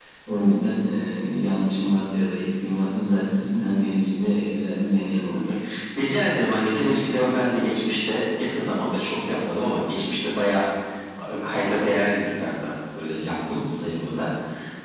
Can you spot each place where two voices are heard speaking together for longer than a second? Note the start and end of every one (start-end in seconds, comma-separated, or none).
none